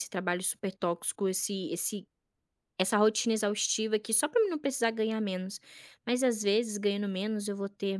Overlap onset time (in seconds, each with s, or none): none